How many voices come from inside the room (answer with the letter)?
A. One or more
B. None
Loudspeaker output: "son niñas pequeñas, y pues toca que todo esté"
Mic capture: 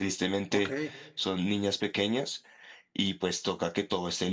A